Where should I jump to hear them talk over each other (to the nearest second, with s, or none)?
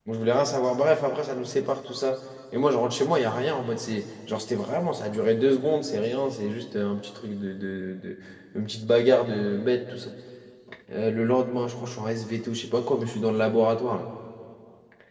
none